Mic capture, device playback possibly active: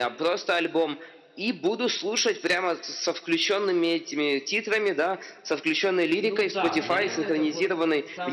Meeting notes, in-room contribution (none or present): present